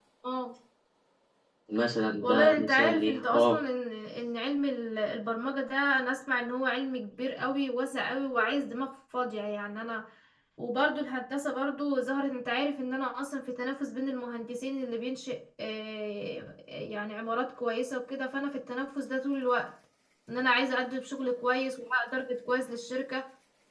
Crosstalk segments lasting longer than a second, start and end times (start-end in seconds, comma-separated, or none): 2.2-3.6